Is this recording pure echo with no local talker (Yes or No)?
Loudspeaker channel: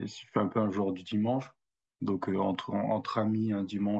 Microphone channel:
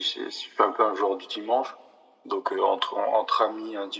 Yes